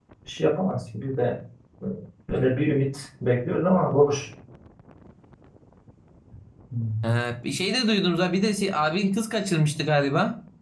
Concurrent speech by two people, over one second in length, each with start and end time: none

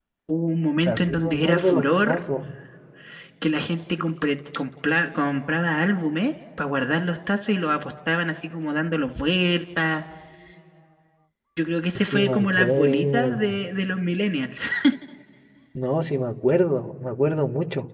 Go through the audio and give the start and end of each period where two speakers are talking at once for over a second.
0.8-2.2, 12.0-13.6

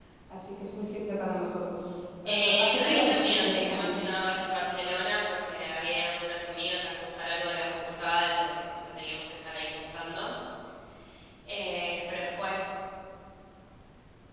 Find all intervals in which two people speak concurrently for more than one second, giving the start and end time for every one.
2.3-3.9

